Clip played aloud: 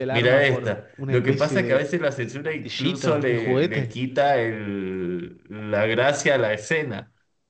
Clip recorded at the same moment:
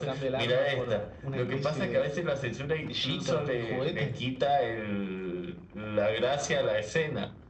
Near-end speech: none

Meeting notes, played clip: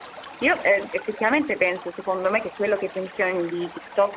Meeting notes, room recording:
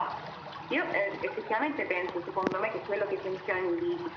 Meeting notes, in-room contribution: none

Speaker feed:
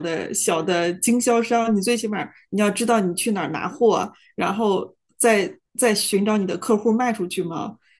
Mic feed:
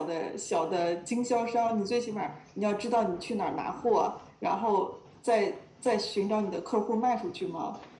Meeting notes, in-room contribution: none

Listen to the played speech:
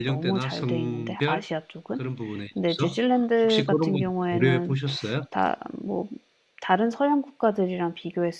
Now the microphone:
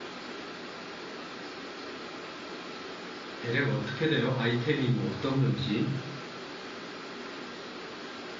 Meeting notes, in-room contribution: present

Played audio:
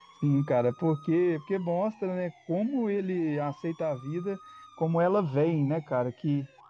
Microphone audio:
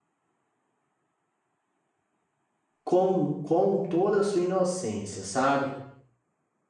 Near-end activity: present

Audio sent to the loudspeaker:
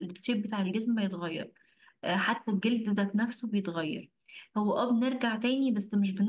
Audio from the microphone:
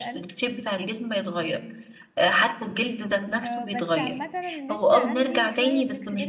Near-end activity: present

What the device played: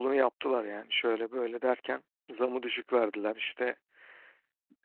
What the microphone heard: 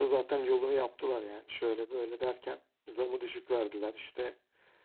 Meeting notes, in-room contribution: none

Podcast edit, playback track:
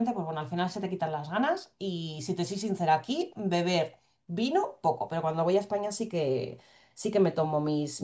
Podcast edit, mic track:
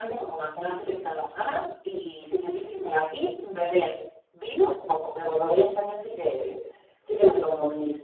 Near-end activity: none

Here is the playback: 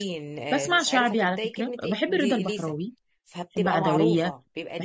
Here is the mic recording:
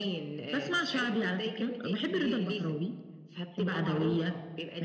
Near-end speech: none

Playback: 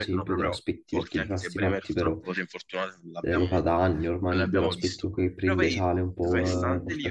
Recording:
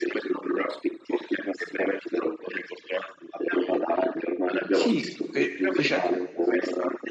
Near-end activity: present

